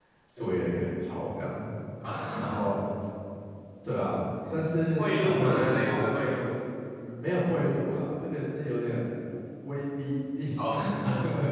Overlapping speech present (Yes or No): Yes